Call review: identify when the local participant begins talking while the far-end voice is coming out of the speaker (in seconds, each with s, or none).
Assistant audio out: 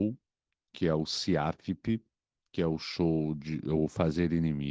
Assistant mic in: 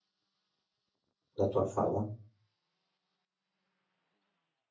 1.4 s